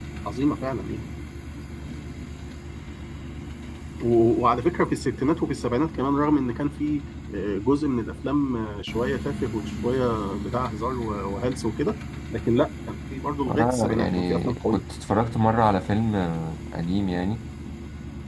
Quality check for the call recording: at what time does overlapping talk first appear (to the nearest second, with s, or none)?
13 s